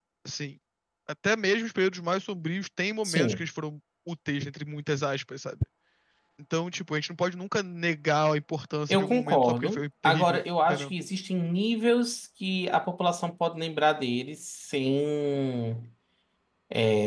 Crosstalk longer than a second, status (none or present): present